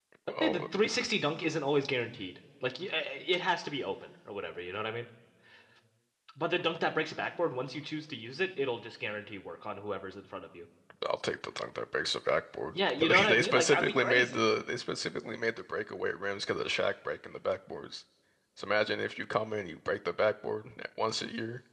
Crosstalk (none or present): present